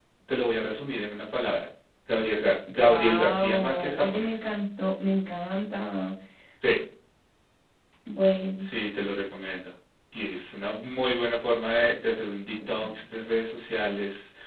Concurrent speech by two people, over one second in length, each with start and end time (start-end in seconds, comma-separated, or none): 2.7-4.5